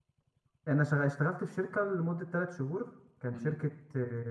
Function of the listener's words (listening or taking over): listening